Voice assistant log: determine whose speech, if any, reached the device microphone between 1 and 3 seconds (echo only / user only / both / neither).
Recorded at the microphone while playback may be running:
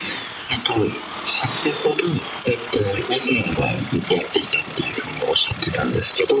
echo only